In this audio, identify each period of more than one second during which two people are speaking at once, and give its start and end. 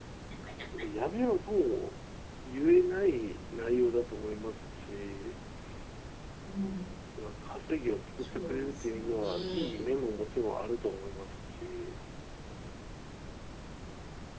8.2-9.9

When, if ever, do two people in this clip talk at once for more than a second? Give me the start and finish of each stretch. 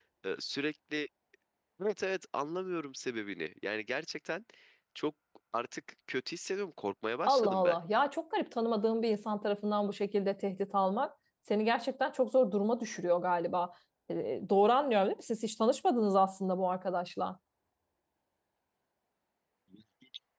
none

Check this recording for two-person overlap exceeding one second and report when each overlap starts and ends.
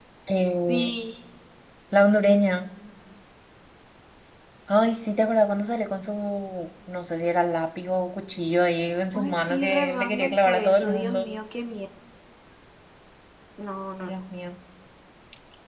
9.1-11.3

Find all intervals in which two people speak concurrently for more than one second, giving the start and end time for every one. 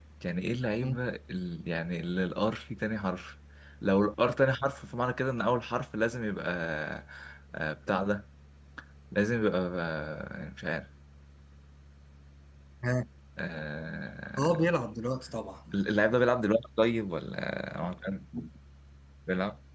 none

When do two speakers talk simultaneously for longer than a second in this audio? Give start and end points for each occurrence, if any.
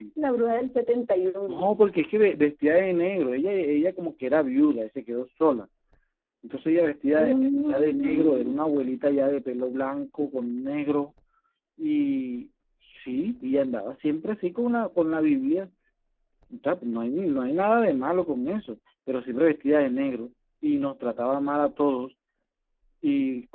7.2-8.6

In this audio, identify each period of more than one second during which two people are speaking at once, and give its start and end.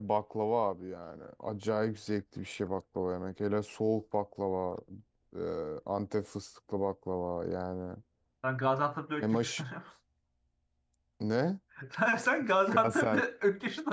none

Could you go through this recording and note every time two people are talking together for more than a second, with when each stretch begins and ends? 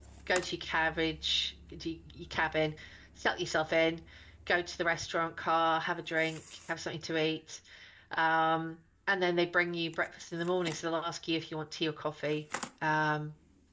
none

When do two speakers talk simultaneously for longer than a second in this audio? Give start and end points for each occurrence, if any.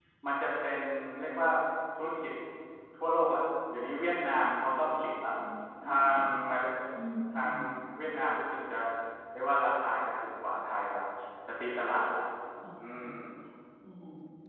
none

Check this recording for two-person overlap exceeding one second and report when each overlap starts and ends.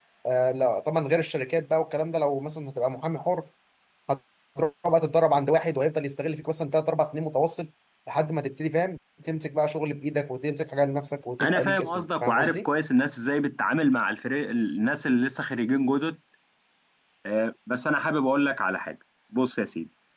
11.4-12.7

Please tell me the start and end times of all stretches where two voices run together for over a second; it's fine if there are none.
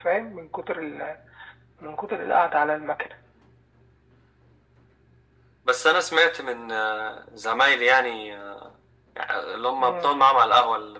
none

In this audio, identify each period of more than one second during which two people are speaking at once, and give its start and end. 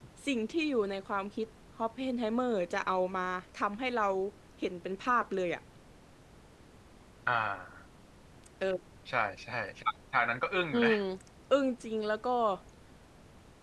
none

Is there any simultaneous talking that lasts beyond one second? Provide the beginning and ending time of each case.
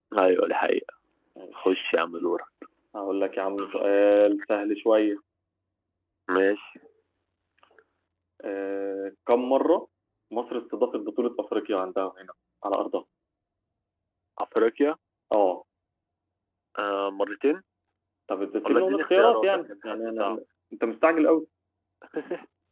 18.6-20.4

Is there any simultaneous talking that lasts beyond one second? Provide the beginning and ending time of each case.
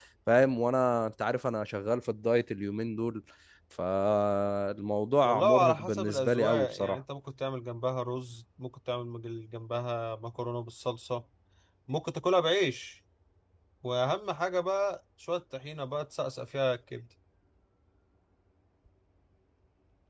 5.2-7.0

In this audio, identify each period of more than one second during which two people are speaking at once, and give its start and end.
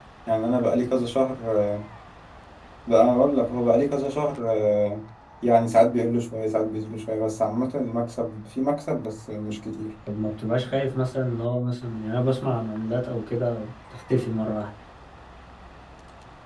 none

